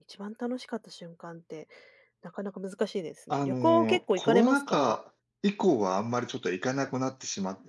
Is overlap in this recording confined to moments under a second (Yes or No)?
No